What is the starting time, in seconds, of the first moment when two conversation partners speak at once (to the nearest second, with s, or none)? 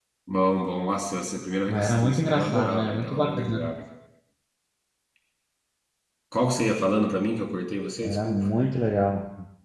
2 s